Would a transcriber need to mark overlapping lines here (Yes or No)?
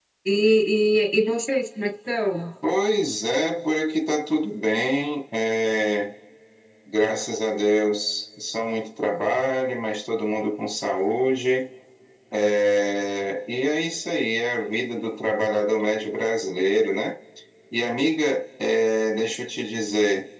No